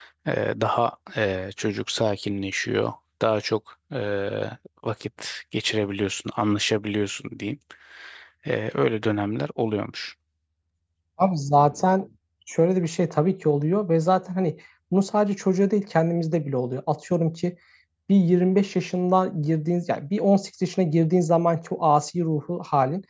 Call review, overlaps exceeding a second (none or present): none